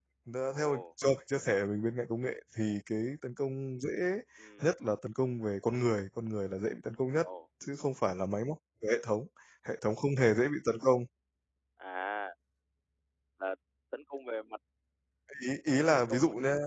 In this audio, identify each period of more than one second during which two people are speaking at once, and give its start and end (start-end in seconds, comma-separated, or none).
none